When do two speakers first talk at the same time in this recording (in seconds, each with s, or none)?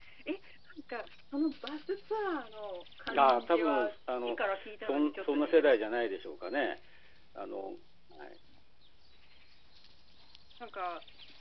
3.1 s